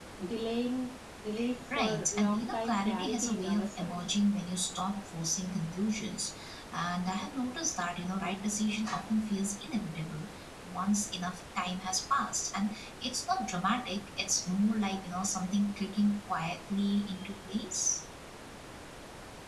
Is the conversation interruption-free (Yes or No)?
No